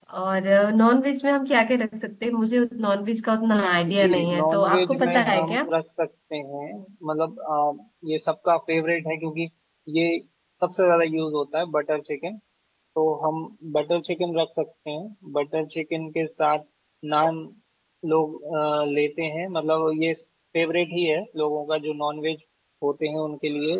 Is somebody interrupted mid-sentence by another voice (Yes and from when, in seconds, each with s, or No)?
Yes, from 3.9 s